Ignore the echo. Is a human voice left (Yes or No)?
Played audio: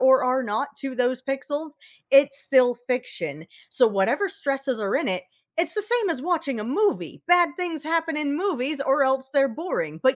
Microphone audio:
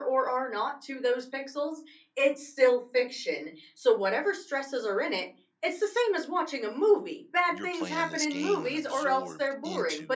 Yes